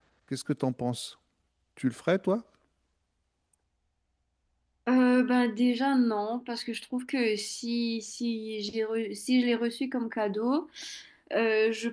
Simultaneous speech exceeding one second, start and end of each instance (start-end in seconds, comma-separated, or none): none